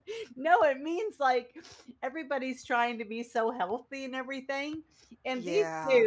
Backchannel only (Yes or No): Yes